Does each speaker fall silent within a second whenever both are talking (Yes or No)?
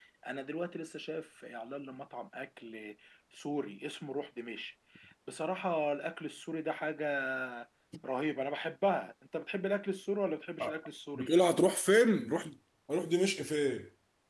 Yes